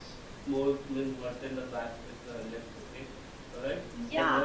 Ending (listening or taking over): taking over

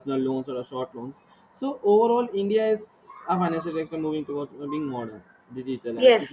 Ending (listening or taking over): taking over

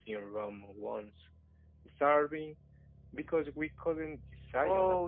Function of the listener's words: taking over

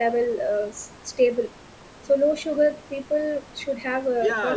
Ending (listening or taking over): taking over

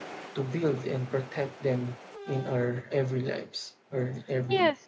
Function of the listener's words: taking over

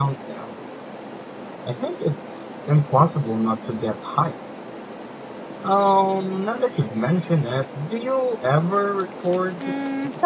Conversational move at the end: taking over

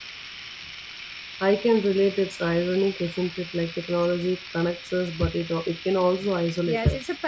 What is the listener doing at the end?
taking over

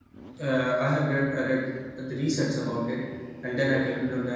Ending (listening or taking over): listening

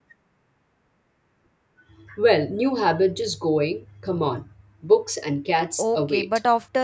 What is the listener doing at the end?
taking over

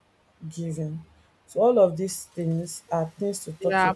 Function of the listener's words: taking over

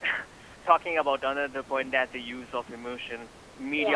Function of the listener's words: listening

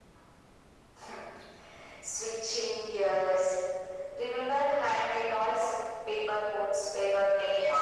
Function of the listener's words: taking over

